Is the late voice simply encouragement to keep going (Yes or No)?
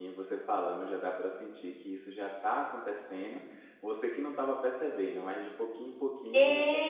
No